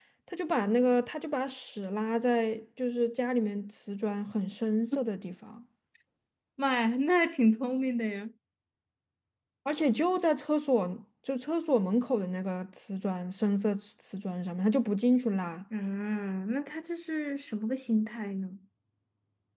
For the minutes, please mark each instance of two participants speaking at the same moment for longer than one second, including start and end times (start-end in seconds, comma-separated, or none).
none